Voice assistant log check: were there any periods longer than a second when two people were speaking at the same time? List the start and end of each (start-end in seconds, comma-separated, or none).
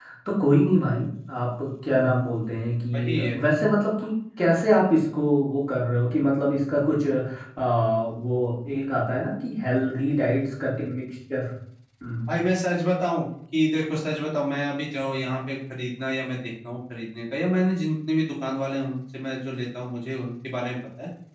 none